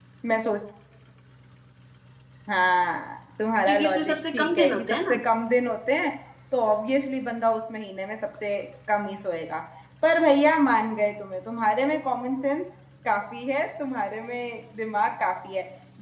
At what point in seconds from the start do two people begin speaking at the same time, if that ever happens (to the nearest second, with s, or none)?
4 s